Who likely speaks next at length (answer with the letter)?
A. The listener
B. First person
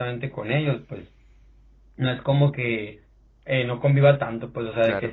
B